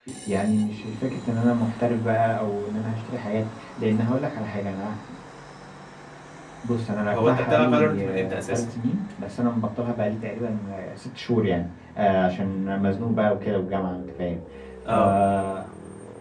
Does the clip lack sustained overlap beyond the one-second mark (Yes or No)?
No